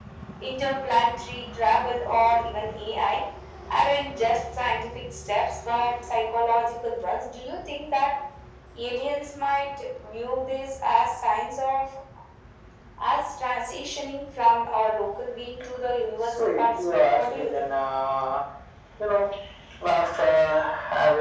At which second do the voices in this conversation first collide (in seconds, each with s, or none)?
16.4 s